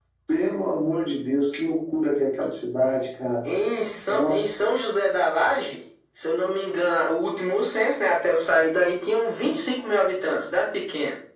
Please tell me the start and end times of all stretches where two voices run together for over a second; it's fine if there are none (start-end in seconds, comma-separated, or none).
none